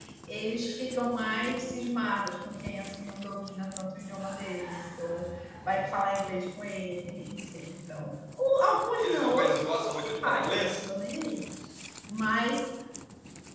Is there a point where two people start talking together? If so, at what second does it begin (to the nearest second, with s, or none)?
9 s